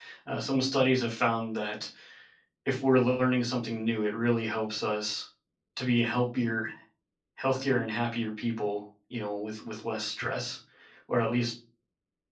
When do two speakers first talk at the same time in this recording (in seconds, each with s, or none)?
none